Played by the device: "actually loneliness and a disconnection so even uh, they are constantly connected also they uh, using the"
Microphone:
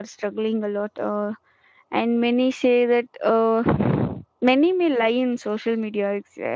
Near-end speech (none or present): present